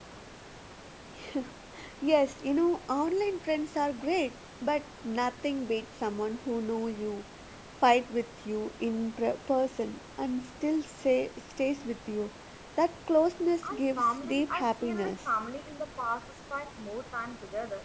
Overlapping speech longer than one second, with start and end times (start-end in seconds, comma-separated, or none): 13.7-15.2